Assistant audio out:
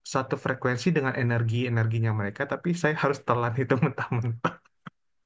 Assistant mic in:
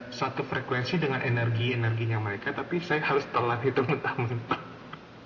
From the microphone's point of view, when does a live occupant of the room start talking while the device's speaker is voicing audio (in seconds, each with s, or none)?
none